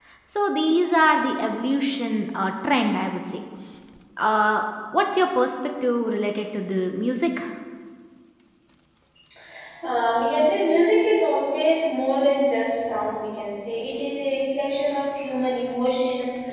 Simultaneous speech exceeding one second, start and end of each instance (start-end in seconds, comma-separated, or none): none